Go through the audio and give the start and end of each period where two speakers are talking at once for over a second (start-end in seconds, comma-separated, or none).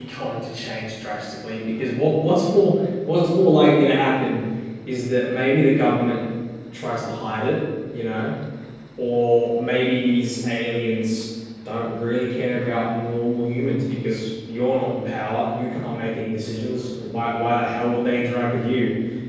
none